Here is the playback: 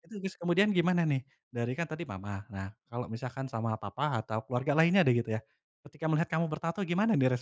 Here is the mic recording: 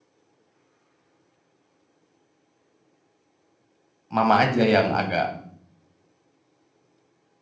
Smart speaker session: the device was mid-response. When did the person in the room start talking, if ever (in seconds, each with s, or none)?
4.1 s